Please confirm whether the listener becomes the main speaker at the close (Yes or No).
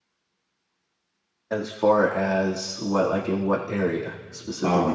Yes